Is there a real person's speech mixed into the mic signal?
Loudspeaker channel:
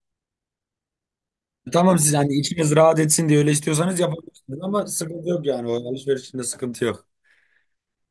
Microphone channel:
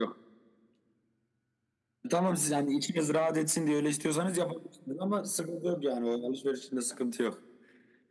No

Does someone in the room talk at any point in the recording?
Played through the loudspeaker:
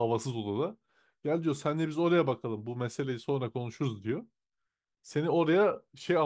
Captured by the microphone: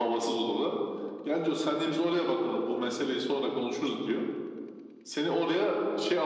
No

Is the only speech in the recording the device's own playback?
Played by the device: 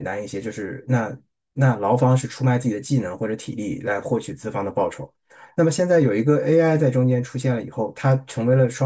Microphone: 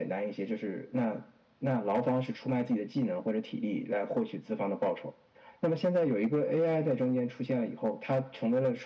Yes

